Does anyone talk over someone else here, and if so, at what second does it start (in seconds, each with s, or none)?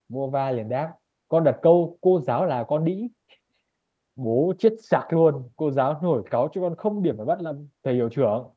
none